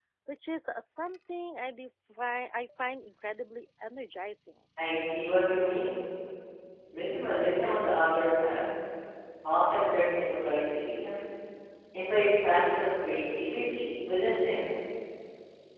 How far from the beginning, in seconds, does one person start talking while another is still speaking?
none

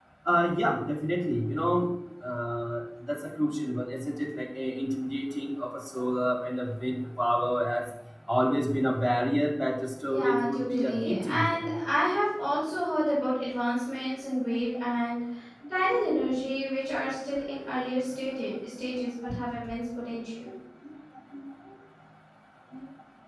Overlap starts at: 10.1 s

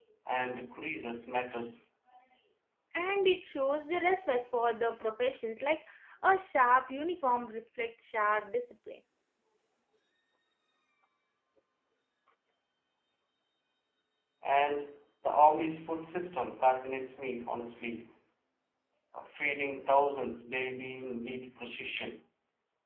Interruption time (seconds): none

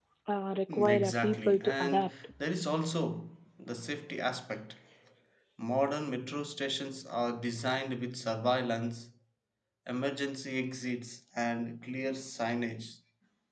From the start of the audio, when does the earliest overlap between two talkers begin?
0.7 s

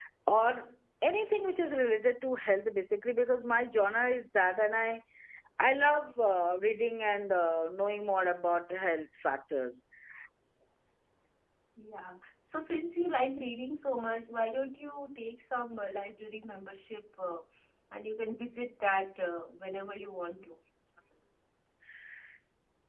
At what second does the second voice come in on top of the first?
none

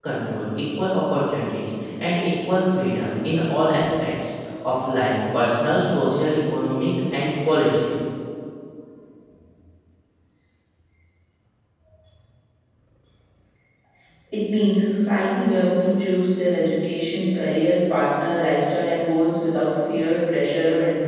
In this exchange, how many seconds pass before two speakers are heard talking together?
none

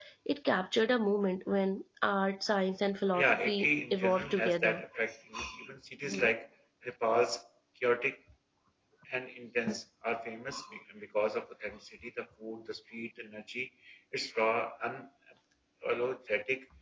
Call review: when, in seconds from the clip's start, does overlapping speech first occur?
3.2 s

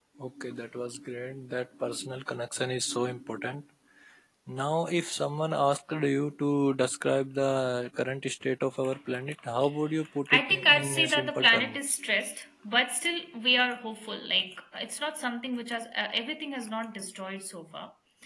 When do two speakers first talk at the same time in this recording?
10.3 s

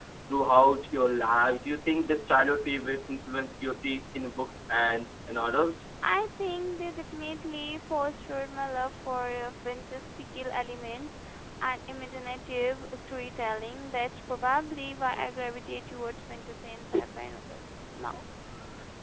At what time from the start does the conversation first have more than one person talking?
none

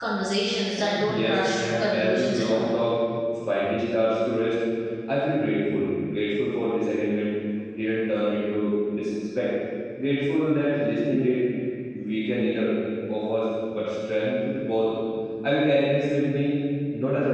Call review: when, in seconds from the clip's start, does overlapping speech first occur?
0.8 s

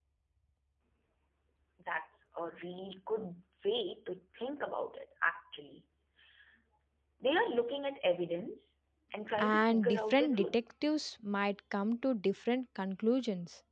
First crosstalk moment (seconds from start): 9.4 s

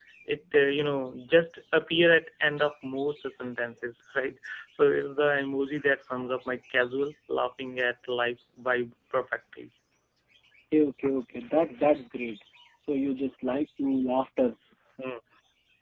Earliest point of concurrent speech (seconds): none

